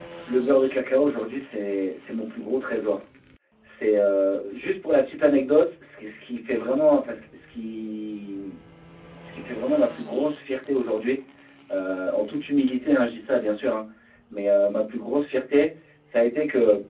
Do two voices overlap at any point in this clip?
No

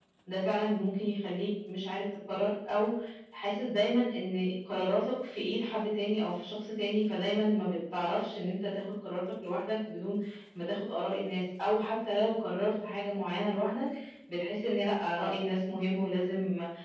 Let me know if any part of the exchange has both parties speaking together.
No

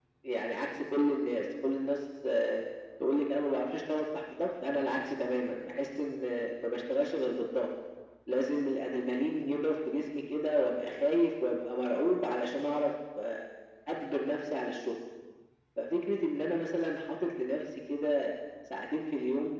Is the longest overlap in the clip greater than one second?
No

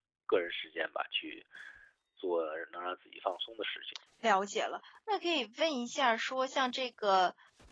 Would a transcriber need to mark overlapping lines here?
No

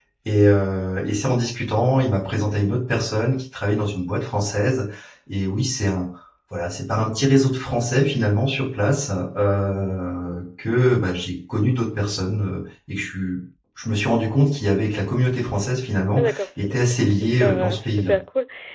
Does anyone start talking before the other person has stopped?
Yes, from 16.2 s

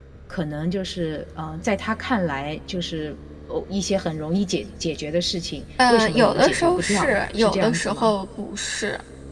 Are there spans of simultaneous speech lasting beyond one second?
Yes, from 5.8 s

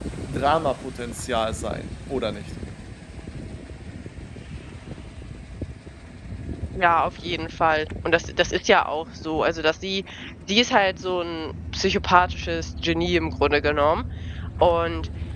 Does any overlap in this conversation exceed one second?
No

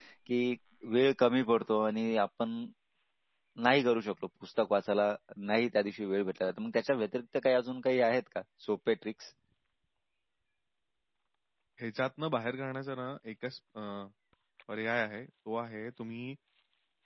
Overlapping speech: No

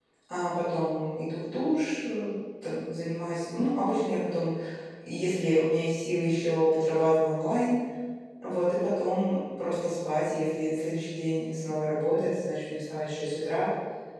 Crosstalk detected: No

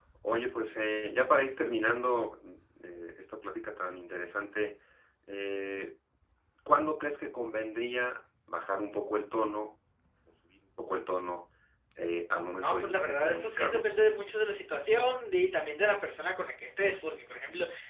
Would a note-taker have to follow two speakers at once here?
Yes, from 12.6 s

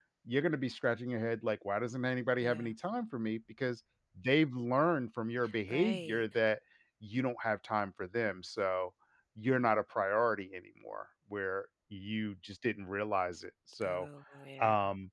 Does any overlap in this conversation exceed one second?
No

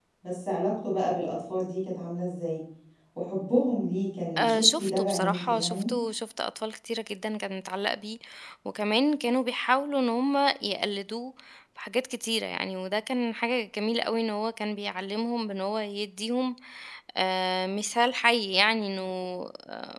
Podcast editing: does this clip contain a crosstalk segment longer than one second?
Yes, from 4.4 s

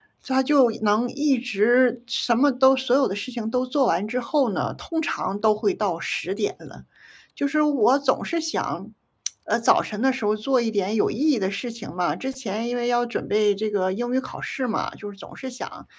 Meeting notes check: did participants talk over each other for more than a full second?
No

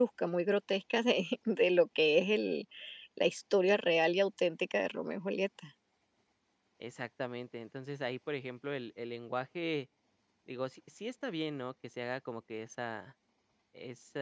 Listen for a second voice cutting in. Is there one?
No

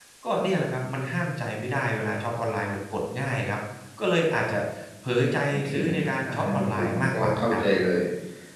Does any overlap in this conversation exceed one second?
Yes, from 5.5 s

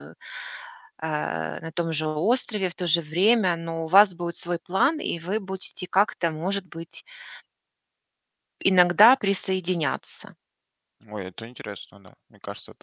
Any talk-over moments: No

